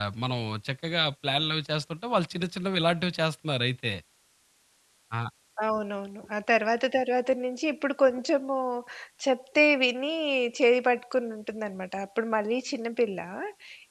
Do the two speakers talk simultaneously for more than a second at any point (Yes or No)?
No